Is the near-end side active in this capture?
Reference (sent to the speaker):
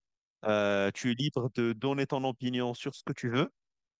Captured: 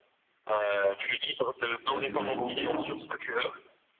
Yes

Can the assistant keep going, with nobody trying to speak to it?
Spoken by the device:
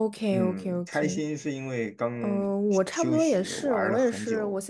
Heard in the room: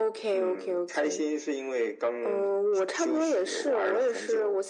Yes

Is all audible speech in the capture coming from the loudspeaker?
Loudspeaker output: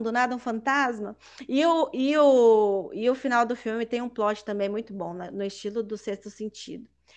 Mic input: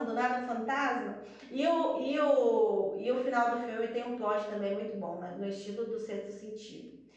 Yes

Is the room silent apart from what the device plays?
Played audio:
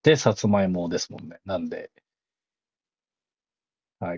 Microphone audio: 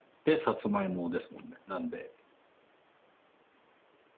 Yes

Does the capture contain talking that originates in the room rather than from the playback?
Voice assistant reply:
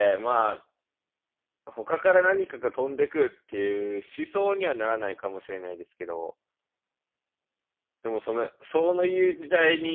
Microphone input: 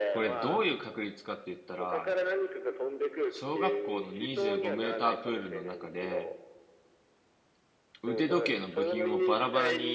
Yes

